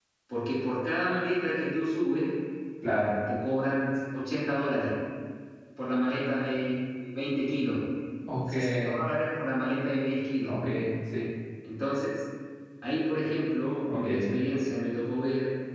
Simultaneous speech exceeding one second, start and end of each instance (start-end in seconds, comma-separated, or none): none